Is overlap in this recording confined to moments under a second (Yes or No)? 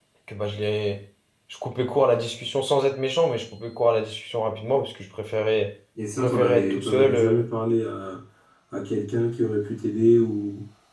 No